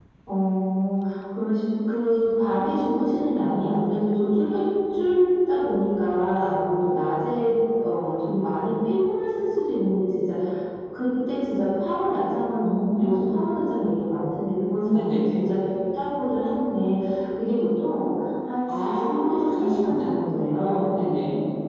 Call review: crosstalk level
present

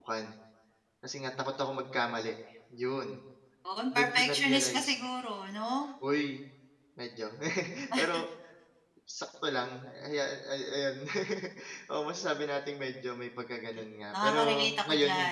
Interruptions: present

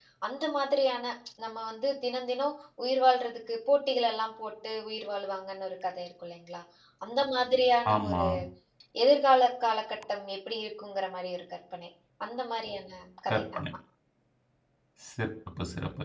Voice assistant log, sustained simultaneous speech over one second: none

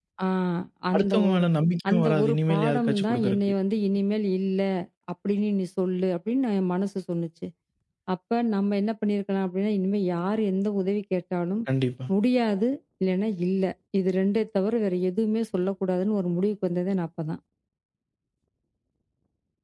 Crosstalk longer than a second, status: present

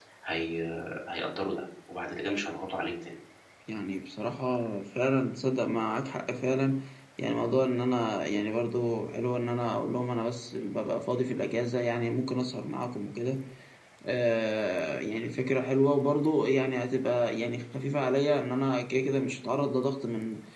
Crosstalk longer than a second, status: none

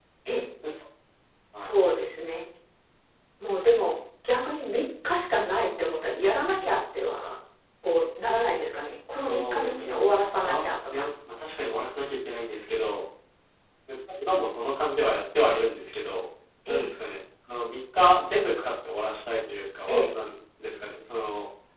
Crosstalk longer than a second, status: present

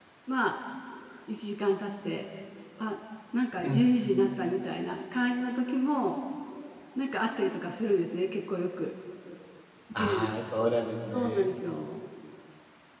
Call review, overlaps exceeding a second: none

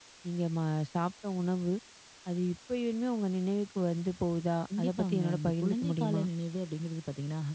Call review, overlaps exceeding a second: present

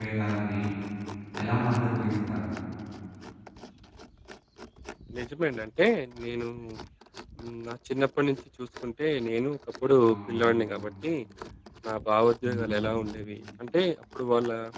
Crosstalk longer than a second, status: none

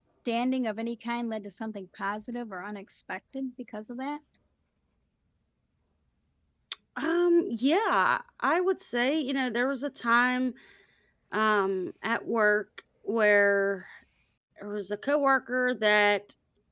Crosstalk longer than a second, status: none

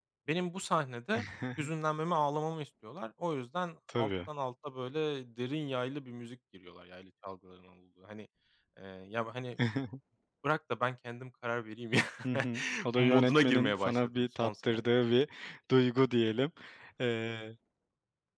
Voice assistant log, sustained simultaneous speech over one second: present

